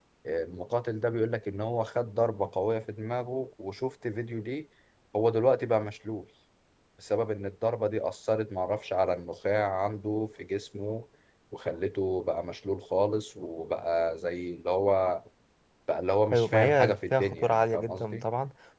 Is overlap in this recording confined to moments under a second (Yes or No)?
No